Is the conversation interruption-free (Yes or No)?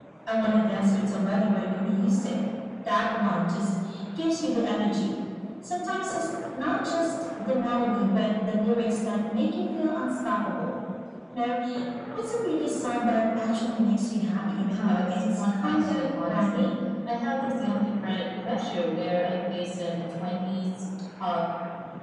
No